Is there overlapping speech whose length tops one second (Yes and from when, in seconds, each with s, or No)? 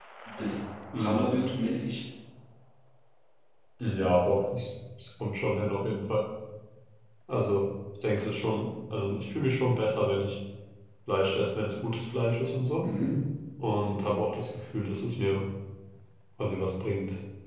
No